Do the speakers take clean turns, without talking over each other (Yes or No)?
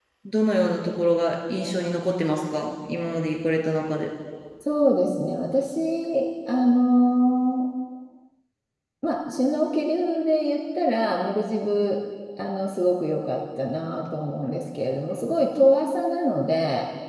Yes